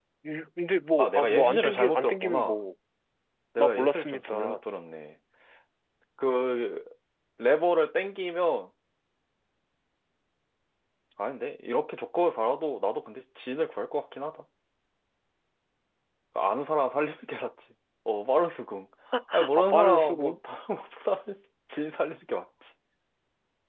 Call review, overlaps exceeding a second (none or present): present